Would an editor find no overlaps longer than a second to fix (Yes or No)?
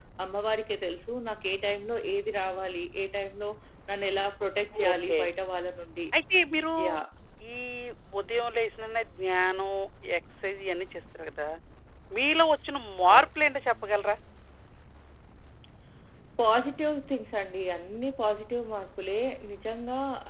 Yes